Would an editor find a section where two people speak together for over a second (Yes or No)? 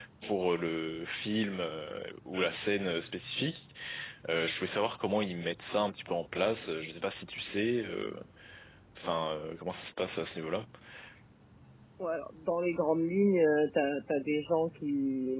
No